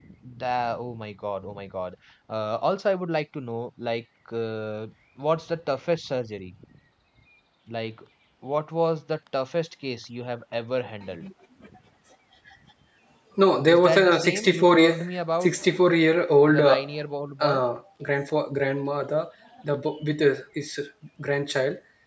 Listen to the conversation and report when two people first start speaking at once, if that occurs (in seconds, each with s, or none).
13.7 s